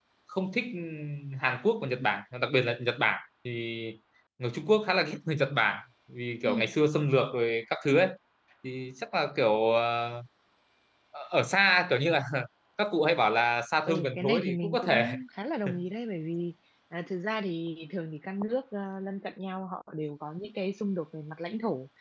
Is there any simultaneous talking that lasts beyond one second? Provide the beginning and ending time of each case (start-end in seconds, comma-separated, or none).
13.9-15.1